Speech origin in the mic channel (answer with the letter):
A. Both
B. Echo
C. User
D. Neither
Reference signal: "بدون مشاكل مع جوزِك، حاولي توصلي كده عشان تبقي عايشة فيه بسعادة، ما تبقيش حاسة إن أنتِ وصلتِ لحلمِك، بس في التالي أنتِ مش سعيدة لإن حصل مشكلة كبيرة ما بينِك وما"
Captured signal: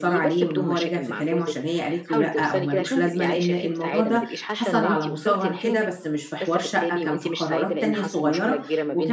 A